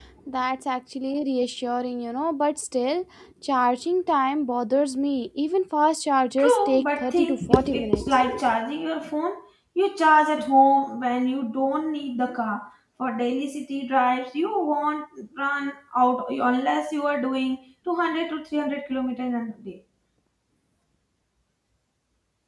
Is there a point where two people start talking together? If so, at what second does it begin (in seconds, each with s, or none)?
6.4 s